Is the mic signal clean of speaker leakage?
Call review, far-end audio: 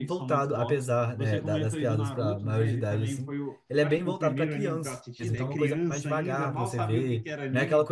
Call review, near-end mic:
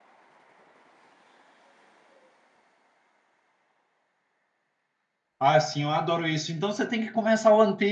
Yes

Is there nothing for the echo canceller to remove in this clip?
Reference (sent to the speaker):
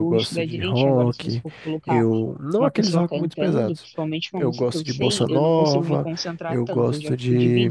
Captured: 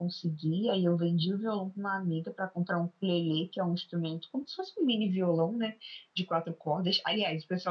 Yes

